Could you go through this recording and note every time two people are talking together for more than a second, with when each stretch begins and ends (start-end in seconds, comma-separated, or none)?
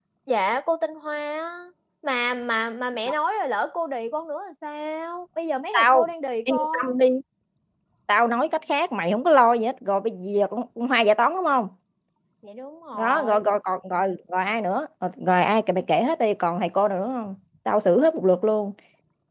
none